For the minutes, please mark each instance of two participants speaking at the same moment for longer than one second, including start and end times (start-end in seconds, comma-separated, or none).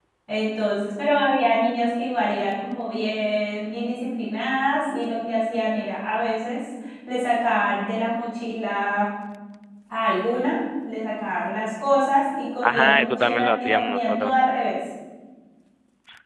12.6-14.3